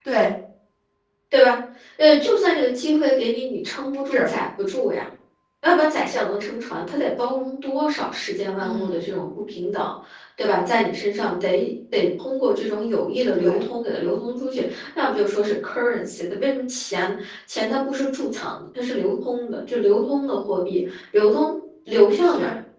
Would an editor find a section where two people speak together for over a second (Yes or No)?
No